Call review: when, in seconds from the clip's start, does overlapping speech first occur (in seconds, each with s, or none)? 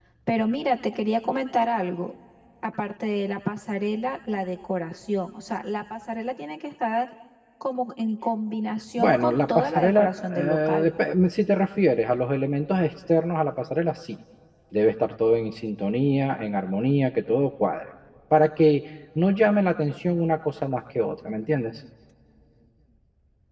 9.0 s